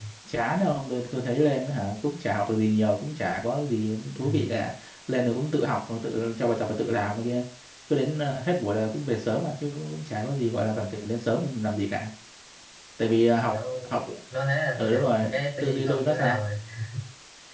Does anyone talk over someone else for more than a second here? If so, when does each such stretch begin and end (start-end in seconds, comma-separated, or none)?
14.8-16.4